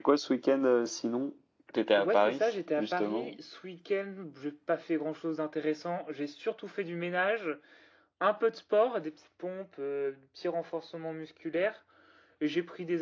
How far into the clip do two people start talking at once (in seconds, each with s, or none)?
2.0 s